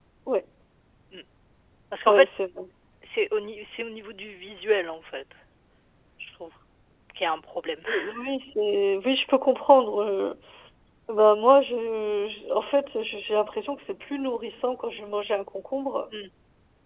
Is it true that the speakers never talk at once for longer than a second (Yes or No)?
Yes